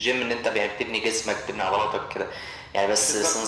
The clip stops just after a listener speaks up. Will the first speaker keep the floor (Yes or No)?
Yes